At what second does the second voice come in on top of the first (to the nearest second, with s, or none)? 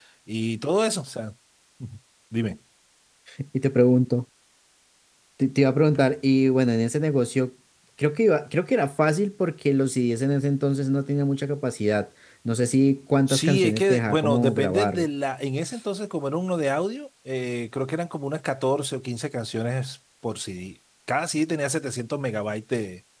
13 s